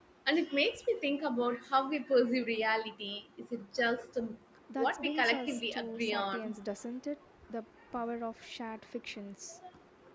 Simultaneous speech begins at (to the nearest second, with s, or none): 5 s